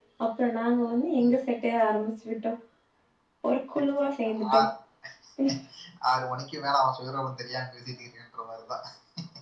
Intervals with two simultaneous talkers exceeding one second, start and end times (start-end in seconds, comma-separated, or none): none